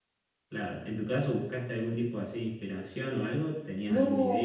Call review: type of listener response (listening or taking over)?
taking over